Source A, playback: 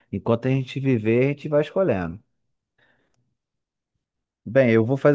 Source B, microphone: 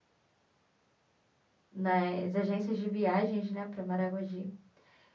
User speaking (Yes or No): Yes